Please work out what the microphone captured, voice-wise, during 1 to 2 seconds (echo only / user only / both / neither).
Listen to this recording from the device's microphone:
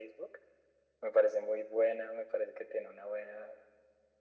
echo only